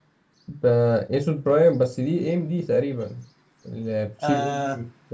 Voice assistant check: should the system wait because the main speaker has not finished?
No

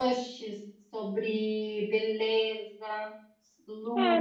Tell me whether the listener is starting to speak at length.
Yes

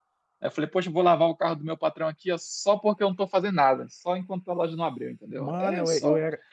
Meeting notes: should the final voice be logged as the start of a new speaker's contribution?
Yes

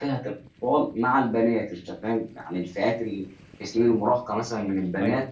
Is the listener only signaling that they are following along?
Yes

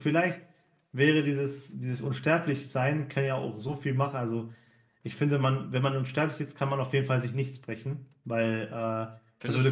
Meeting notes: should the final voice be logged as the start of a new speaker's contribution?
No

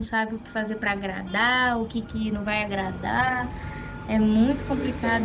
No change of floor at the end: Yes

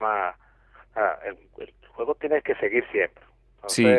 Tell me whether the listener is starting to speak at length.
No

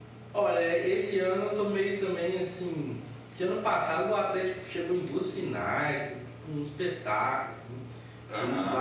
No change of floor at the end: Yes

